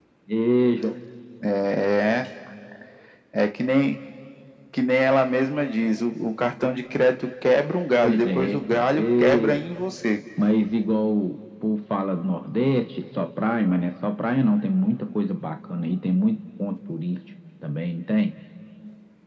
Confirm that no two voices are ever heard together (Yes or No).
No